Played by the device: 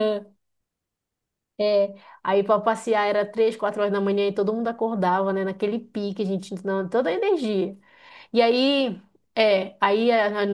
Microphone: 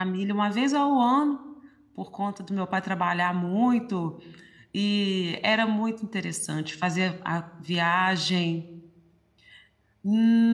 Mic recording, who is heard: user only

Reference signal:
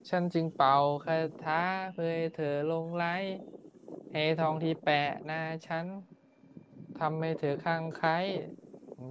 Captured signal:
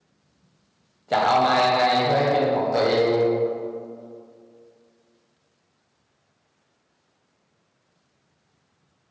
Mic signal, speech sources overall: user only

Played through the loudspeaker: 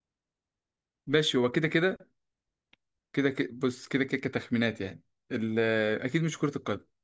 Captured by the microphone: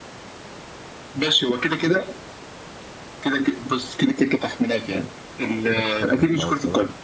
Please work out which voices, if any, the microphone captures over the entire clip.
both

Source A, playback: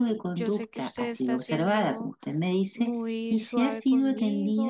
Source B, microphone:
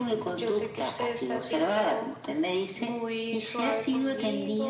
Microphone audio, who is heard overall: echo only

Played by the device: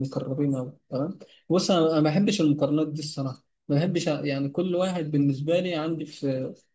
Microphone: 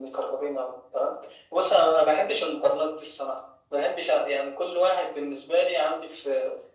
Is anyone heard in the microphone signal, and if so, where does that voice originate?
echo only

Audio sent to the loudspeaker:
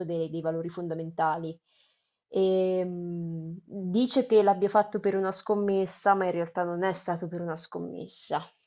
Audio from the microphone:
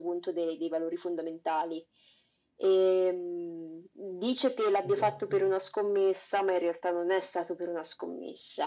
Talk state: both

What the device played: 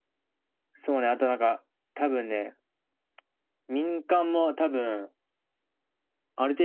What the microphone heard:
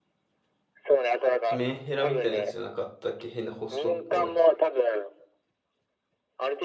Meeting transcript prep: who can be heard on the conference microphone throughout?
both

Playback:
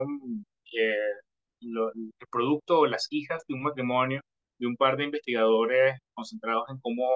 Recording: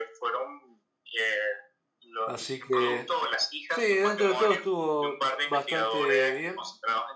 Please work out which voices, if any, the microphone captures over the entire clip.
both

